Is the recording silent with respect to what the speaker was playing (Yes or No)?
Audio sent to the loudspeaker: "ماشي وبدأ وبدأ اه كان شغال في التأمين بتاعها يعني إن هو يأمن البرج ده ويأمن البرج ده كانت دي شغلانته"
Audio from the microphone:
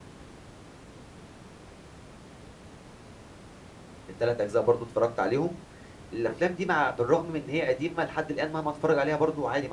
Yes